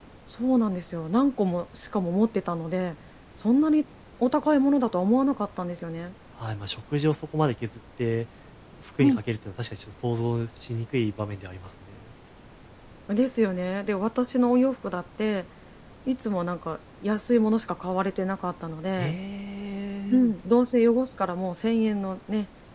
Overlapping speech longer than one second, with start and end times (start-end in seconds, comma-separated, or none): none